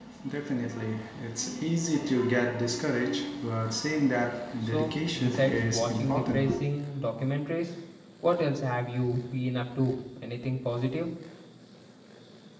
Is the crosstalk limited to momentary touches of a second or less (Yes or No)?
No